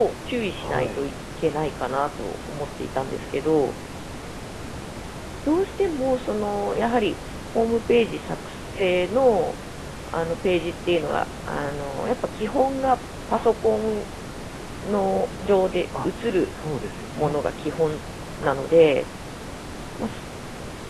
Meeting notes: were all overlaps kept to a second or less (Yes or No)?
Yes